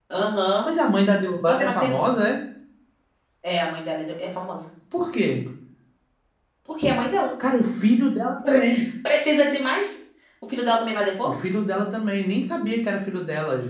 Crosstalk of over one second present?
No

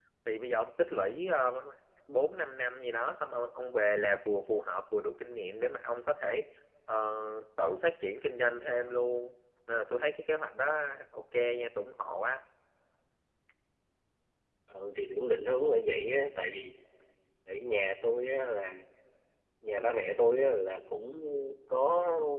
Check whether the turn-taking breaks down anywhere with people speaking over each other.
No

